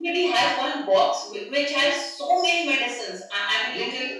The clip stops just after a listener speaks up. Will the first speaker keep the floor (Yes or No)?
No